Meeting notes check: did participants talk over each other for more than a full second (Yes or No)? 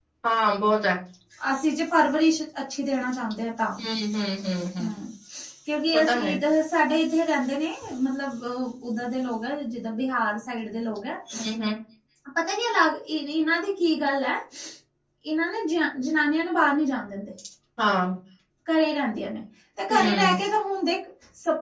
No